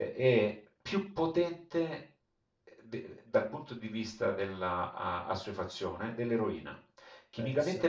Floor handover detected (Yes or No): No